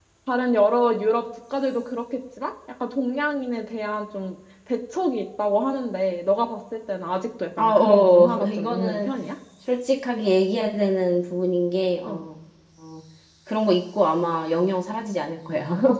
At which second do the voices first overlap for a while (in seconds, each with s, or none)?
7.6 s